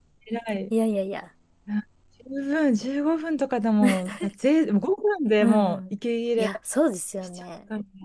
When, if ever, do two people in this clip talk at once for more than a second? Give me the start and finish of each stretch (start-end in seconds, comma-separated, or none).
none